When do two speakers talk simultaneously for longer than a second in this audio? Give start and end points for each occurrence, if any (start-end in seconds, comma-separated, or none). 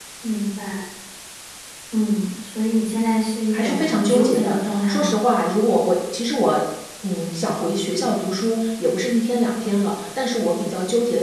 3.5-5.1